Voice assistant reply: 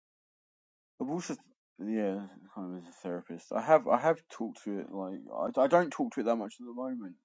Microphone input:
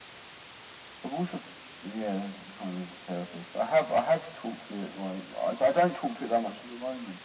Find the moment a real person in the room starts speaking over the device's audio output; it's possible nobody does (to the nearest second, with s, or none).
none